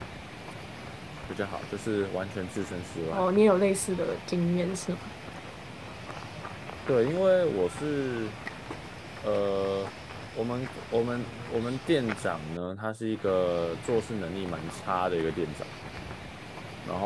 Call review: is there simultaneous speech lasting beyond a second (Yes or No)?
No